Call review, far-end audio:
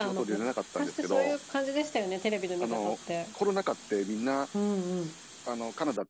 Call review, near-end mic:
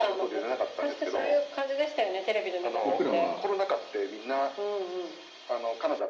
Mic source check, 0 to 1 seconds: echo only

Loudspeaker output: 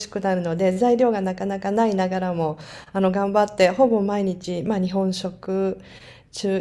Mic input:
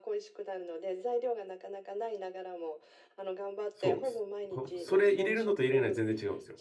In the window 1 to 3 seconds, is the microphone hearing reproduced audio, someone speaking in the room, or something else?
echo only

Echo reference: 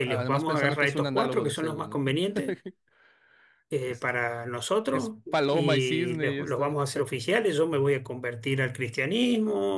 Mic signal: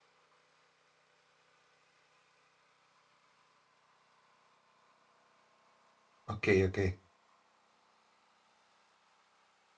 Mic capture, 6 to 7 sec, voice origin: user only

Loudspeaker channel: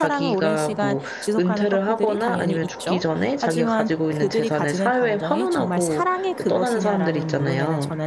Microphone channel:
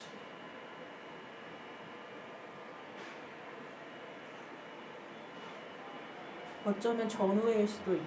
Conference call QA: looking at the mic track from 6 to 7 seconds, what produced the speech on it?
user only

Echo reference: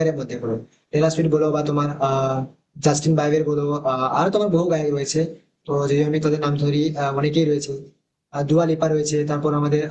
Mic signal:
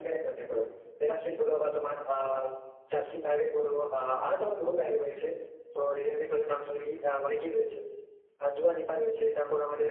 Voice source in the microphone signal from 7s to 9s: echo only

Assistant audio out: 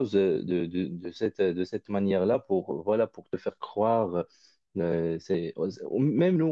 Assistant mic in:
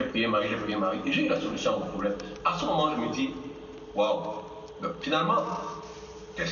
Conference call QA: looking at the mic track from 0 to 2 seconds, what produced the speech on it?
user only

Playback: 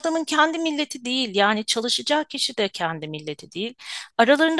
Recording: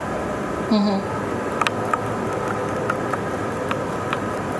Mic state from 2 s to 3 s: neither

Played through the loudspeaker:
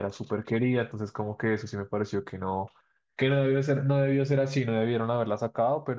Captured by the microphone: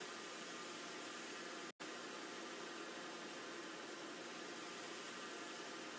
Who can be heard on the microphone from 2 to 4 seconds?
neither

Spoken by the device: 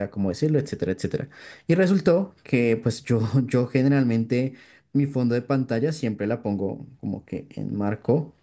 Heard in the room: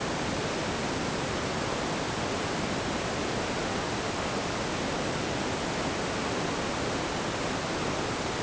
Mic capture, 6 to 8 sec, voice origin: neither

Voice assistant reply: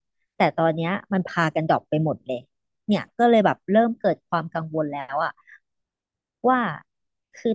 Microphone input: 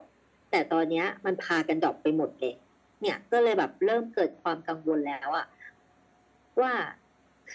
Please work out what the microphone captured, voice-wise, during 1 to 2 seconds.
echo only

